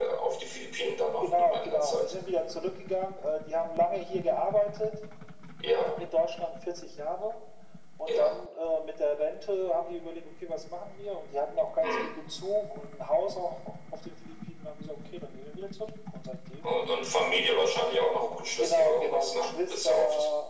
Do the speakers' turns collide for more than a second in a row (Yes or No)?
Yes